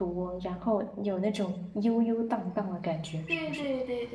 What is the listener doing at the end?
taking over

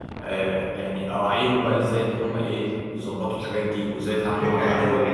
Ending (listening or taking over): taking over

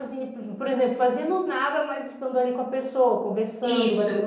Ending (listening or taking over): taking over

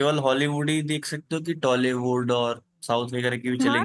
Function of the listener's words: taking over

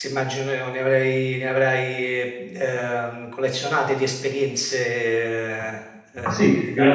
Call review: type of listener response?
taking over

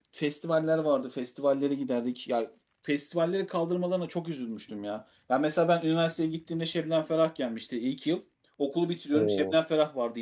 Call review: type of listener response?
listening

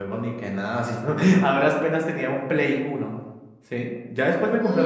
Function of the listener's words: taking over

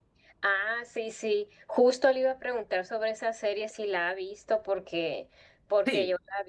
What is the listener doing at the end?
listening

